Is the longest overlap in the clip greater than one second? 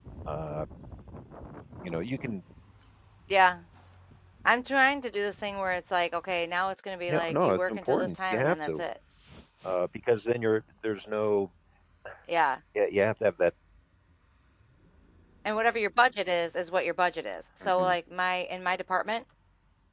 Yes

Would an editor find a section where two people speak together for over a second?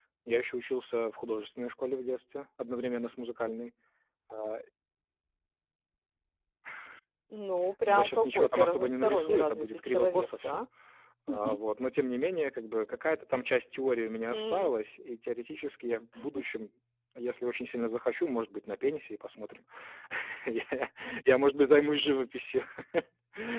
Yes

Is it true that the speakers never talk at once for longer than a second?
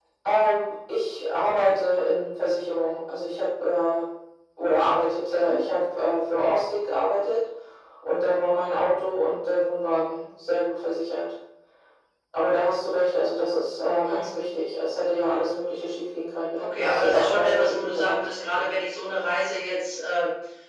No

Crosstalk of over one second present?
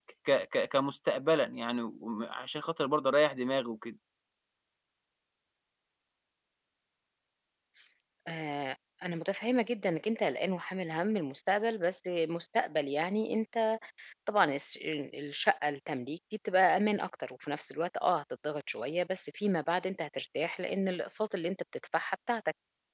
No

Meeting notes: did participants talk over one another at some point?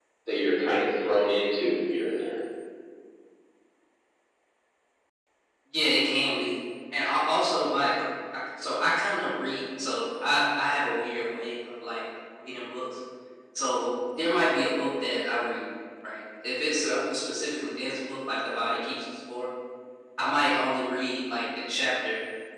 No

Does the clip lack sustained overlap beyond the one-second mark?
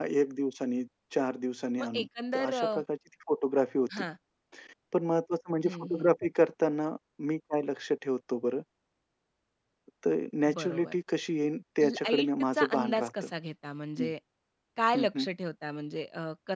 No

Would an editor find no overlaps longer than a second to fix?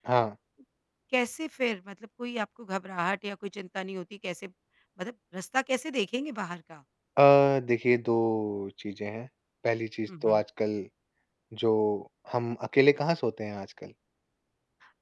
Yes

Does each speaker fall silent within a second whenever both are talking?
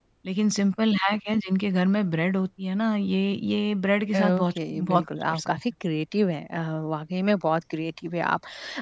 No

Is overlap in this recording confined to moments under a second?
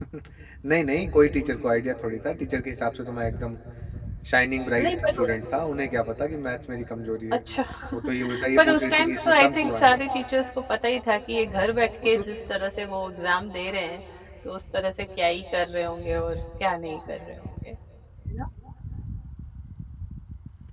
No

